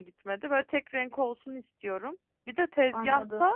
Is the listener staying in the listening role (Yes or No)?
Yes